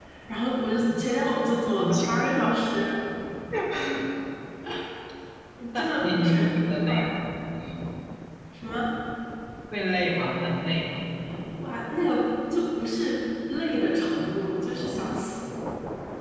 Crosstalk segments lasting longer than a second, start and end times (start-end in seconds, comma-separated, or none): 5.8-7.1